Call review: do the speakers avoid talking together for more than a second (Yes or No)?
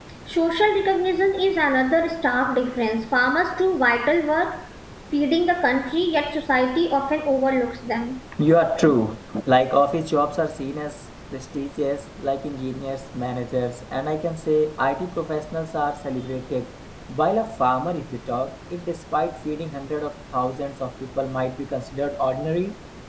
Yes